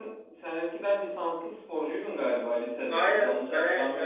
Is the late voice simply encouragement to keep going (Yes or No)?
No